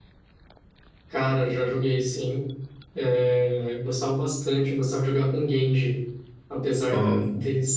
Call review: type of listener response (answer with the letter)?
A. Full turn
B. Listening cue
B